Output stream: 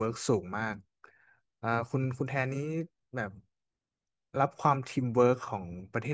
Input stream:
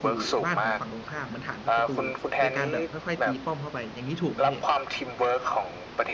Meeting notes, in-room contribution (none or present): present